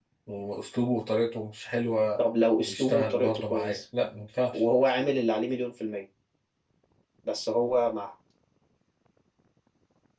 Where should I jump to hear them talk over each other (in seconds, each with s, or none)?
2.6 s